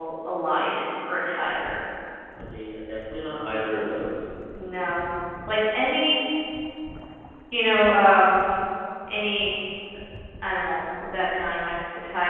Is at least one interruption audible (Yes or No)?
No